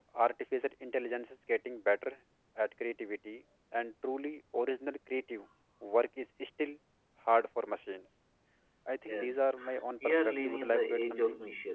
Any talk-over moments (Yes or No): Yes